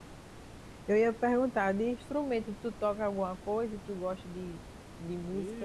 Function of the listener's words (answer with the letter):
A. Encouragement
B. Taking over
B